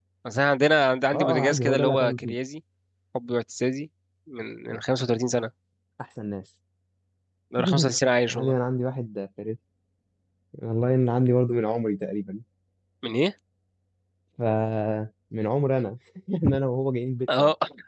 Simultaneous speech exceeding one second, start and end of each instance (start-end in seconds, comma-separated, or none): 1.1-2.3